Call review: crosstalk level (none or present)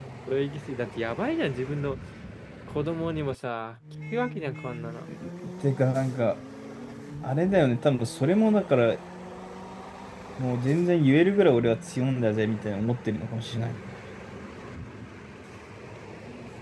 none